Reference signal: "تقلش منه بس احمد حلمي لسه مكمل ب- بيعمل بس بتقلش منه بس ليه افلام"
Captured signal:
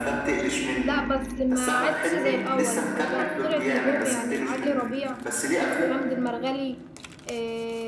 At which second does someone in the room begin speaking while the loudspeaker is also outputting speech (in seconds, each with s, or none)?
0.8 s